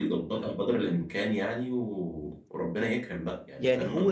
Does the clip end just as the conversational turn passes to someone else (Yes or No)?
Yes